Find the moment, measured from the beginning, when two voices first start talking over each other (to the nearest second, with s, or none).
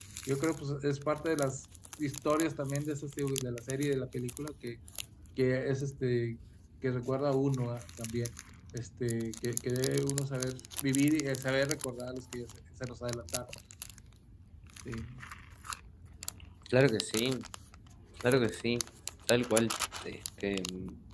none